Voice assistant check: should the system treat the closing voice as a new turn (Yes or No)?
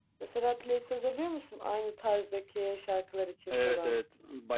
Yes